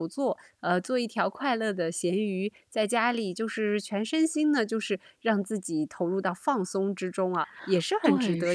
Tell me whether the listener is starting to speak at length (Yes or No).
Yes